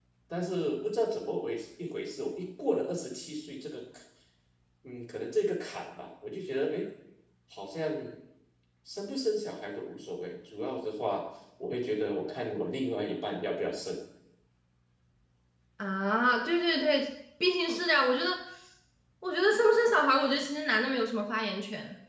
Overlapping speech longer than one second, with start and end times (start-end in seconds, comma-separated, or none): none